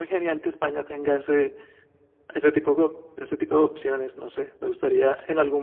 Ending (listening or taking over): listening